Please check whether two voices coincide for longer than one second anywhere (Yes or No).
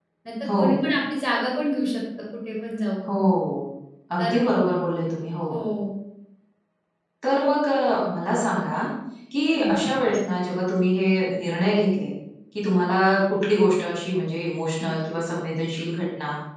No